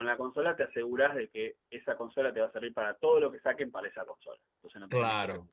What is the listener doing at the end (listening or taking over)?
taking over